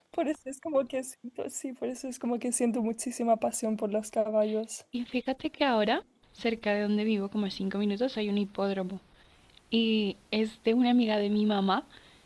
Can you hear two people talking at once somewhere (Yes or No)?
No